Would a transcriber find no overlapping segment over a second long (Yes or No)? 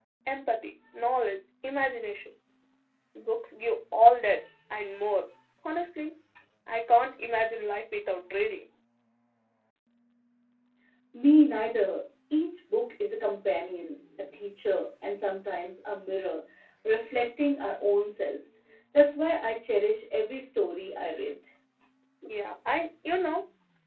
Yes